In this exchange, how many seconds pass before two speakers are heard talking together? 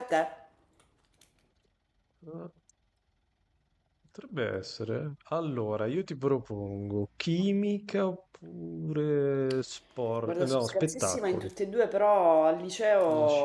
10.2 s

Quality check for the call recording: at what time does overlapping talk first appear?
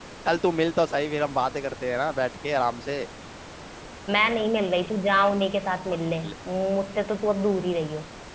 none

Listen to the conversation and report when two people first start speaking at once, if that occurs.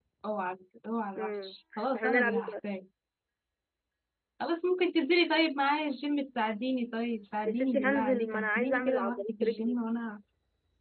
1.2 s

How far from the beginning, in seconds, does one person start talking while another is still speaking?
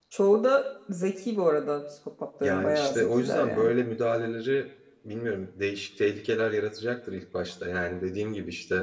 2.4 s

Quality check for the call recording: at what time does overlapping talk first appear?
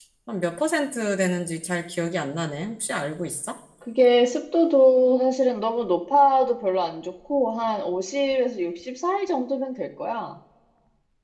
none

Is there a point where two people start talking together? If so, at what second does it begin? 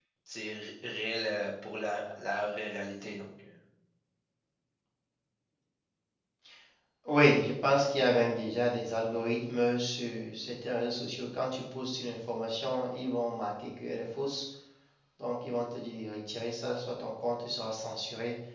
none

